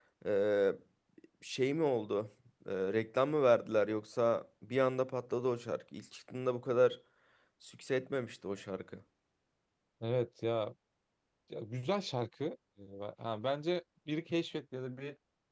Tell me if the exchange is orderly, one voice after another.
Yes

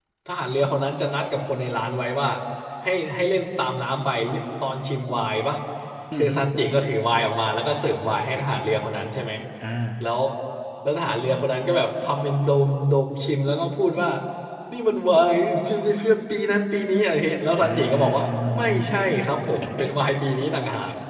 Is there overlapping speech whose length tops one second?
Yes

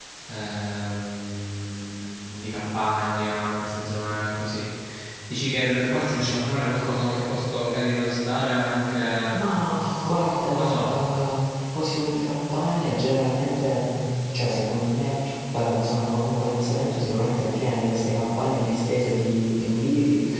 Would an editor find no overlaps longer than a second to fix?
Yes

